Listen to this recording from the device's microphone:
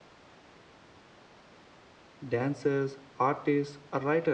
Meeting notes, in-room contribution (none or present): present